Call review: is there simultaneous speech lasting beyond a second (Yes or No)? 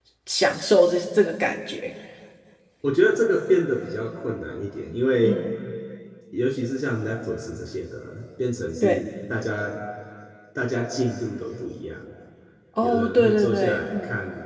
Yes